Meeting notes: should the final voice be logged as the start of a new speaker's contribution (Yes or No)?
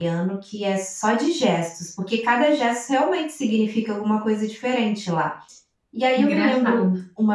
No